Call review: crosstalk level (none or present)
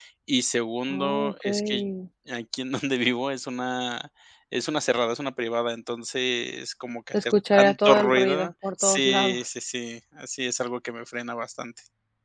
present